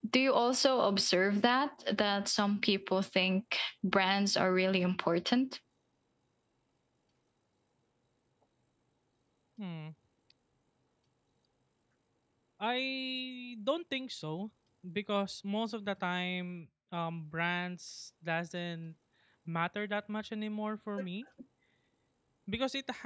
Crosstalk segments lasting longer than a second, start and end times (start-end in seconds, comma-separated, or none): none